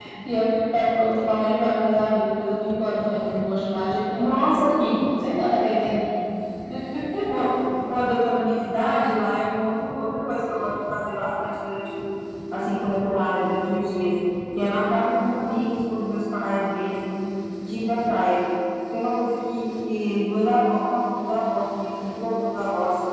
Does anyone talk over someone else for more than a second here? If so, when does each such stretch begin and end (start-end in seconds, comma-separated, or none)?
none